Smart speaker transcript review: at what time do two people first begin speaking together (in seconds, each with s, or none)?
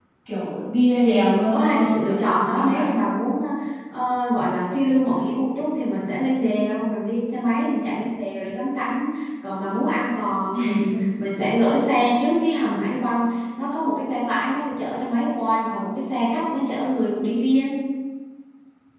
1.0 s